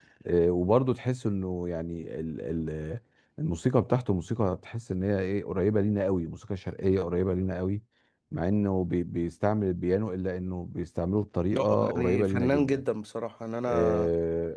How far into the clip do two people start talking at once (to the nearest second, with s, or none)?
12 s